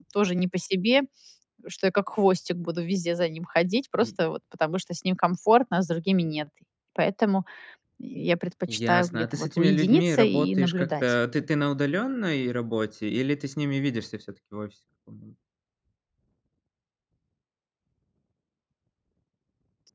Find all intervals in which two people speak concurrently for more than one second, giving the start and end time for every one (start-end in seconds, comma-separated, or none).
8.7-11.0